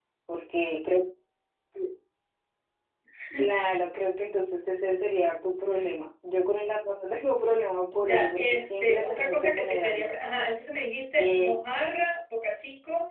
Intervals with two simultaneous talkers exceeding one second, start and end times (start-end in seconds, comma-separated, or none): 8.0-10.1